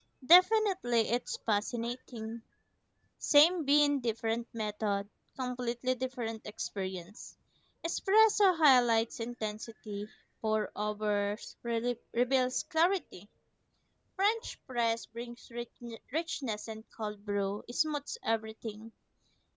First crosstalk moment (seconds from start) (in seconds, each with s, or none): none